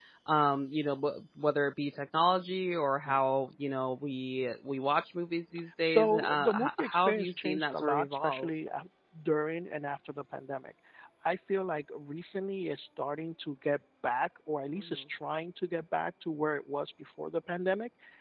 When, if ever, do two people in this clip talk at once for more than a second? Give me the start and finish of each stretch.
5.8-8.5

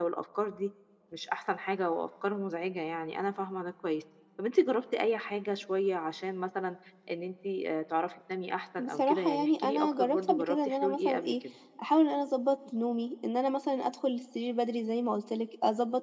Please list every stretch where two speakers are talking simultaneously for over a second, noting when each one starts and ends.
8.8-11.4

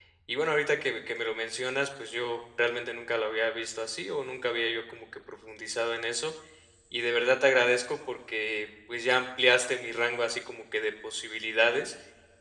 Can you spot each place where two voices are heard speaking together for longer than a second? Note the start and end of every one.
none

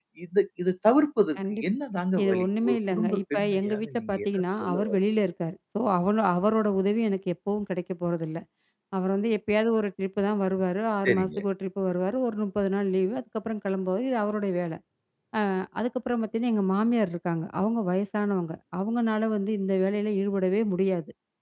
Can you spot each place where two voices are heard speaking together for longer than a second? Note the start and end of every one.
2.2-5.0

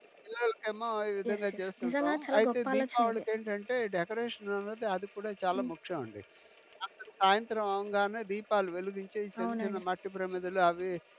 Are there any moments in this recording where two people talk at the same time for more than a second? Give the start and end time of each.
1.3-3.2

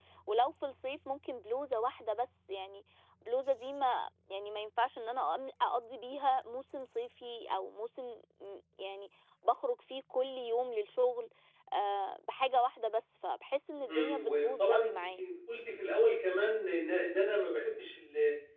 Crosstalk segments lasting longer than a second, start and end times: 13.9-15.2

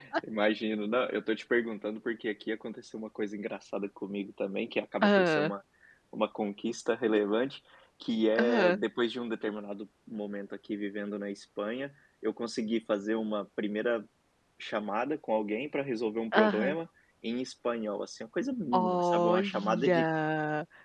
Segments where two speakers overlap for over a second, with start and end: 18.7-20.0

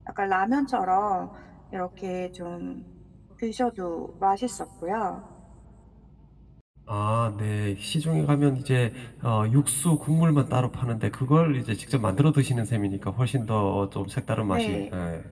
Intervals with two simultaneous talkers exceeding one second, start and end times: none

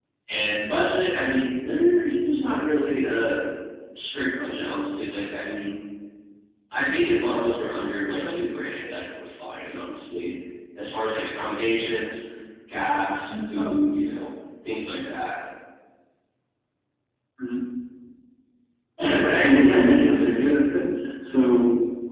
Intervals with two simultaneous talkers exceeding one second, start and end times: 19.1-20.5

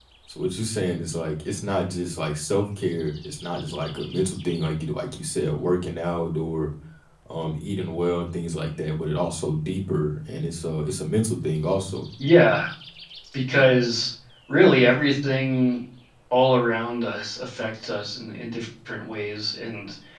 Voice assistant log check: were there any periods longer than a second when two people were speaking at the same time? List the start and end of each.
none

